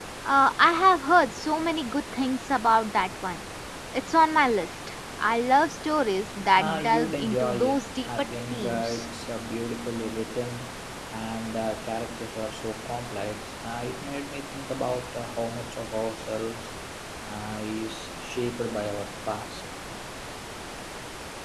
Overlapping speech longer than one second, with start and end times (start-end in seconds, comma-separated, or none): 6.6-9.0